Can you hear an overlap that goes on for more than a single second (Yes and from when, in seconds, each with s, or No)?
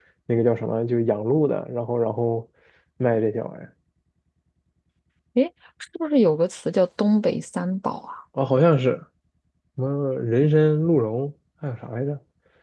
No